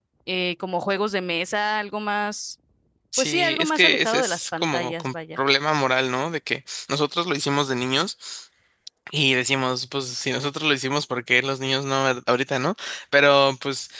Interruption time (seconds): 3.2 s

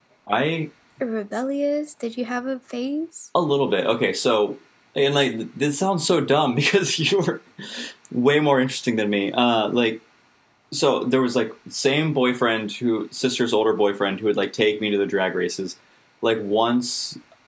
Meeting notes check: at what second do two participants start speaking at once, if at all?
none

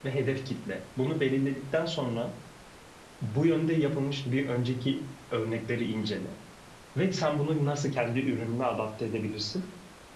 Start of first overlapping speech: none

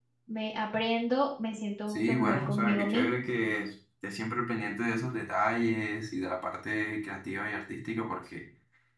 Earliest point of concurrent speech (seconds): 1.9 s

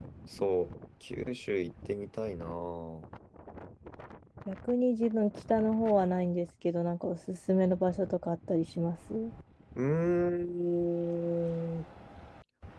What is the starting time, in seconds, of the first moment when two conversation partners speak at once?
none

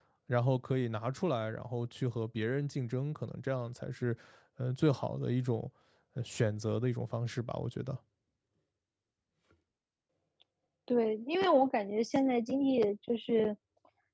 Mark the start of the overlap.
none

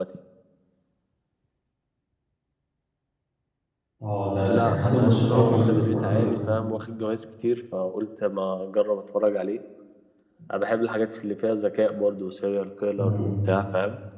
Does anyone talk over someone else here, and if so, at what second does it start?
4.5 s

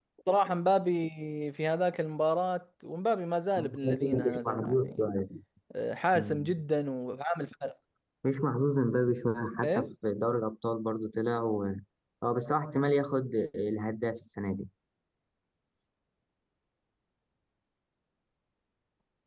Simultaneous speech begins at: 3.6 s

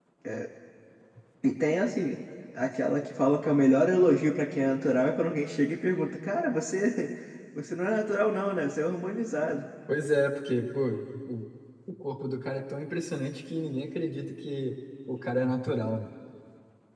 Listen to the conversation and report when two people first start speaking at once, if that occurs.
none

